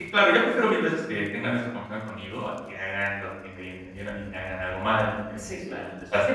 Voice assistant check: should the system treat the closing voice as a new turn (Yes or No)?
Yes